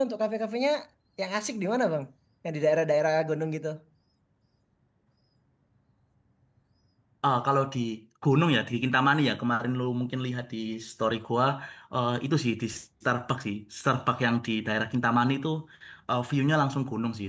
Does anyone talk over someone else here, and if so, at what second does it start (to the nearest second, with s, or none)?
none